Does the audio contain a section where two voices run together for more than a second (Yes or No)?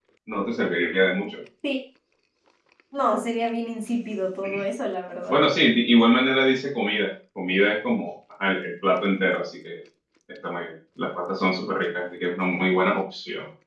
No